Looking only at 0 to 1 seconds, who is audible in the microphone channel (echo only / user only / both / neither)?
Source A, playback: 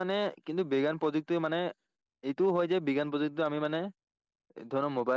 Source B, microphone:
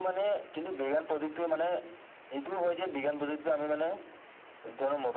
echo only